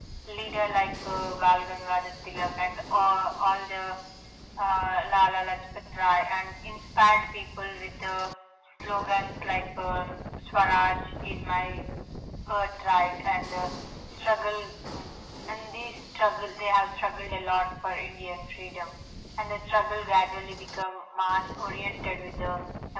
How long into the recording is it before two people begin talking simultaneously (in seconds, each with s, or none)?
none